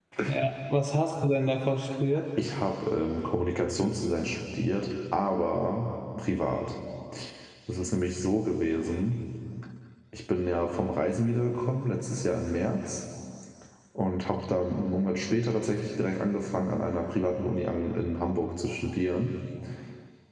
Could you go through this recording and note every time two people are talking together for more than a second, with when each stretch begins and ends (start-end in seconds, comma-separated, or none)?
none